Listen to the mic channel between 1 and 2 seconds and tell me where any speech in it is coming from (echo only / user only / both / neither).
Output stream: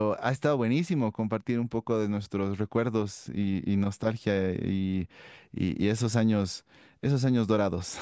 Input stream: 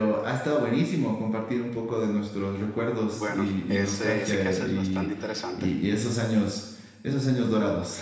echo only